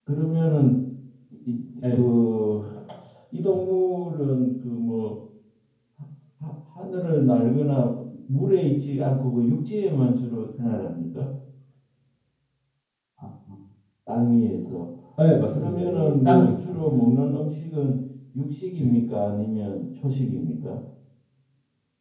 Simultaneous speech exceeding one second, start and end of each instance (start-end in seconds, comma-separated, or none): 15.5-16.9